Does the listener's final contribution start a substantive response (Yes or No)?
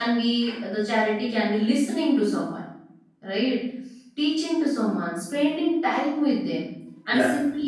No